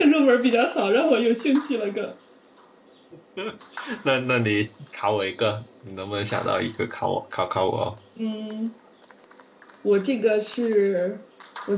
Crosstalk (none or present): none